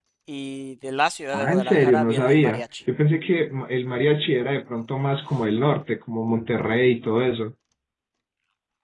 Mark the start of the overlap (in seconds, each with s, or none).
1.3 s